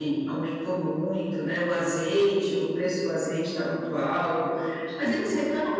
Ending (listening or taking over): listening